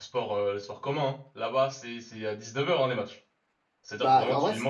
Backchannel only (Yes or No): No